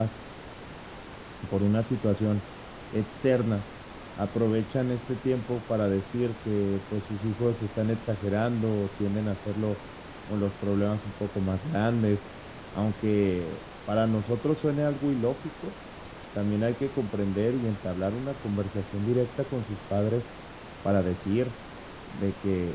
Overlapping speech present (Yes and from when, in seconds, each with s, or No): No